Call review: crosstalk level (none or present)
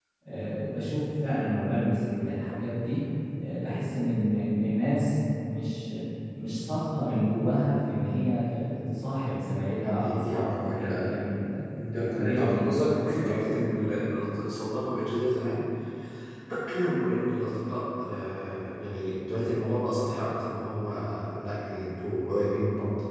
present